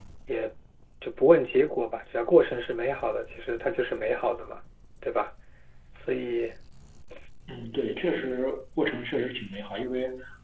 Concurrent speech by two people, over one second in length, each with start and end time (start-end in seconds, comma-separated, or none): none